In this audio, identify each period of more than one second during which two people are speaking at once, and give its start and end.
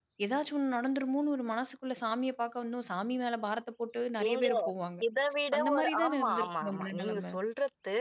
5.6-7.3

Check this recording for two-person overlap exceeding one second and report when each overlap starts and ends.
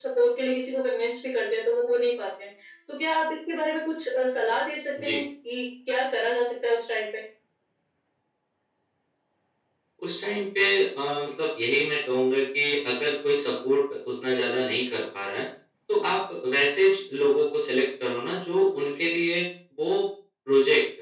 none

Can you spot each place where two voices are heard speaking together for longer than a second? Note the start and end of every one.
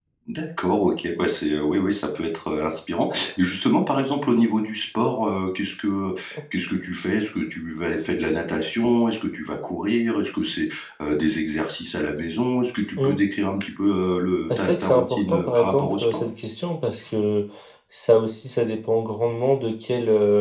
14.6-16.2

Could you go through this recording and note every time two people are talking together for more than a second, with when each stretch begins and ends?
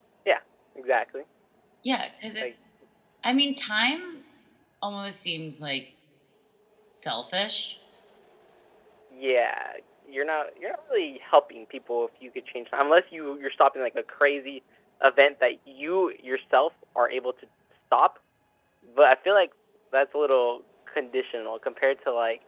none

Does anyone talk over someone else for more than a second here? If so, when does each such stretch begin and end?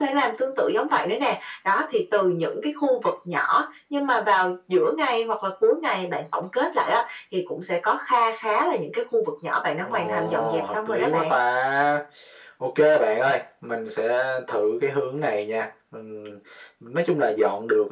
9.8-11.4

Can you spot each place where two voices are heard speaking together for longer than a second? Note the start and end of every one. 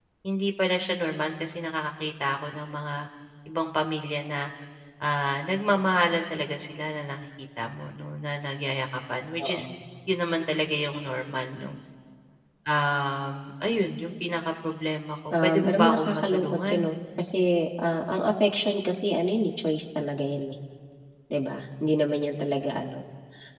15.3-16.9

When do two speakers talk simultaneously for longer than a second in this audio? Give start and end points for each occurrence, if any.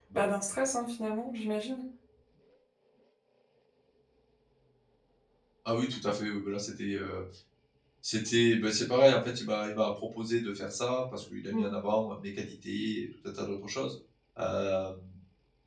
none

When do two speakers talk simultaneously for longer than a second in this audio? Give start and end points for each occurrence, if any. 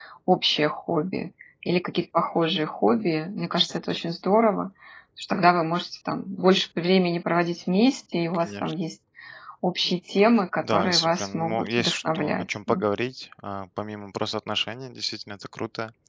10.6-12.8

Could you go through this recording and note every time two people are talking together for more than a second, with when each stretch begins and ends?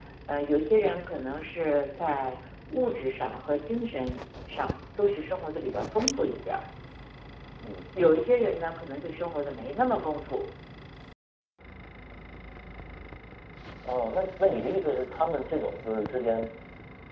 none

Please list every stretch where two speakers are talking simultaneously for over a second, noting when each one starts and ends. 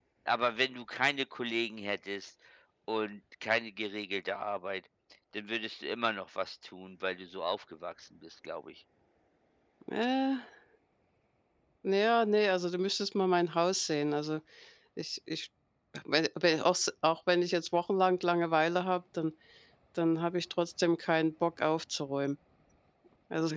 none

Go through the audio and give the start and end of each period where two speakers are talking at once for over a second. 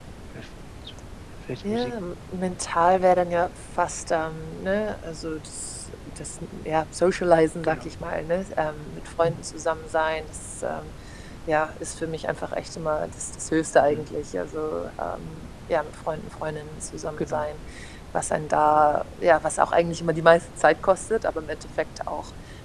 none

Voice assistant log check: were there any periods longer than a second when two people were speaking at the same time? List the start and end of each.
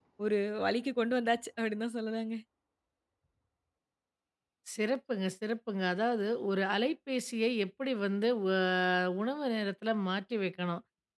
none

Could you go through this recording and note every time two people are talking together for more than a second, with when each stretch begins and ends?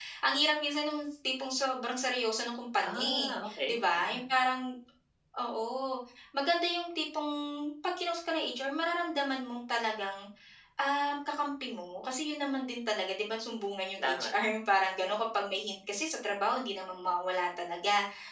2.8-4.2

